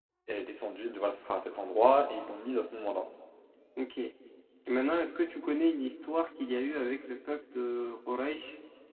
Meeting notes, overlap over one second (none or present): none